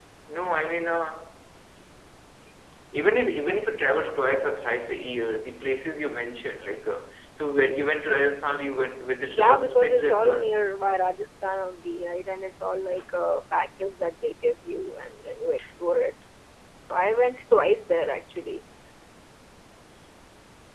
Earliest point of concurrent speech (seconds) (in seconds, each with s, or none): 9.2 s